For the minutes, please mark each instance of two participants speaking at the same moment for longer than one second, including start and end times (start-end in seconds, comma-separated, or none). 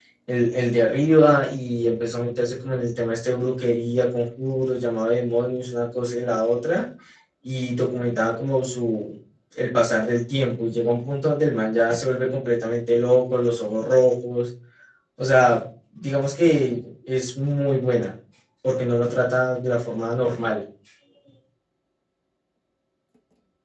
none